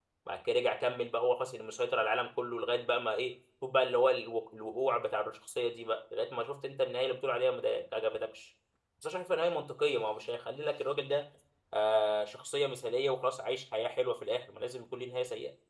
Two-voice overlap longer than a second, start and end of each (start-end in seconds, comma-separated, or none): none